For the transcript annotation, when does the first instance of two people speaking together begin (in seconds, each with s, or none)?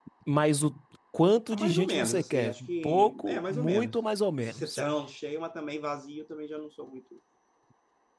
1.5 s